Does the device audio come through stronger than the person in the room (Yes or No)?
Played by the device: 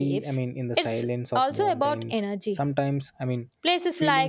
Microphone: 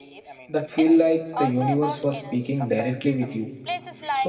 No